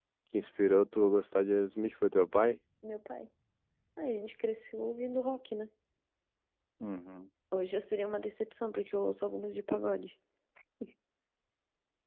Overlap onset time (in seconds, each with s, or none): none